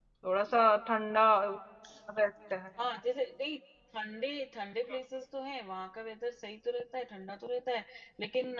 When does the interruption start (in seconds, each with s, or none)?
none